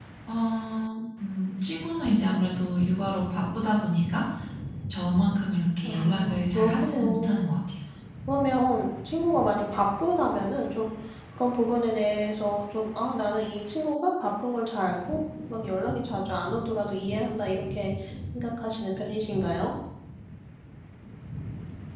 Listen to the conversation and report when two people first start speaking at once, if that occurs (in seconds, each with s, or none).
5.8 s